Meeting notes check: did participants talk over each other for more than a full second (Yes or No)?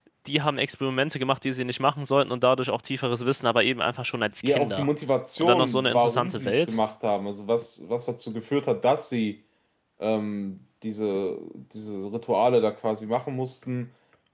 Yes